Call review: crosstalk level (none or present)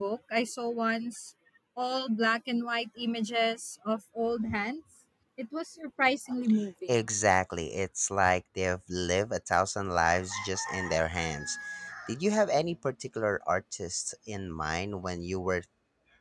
none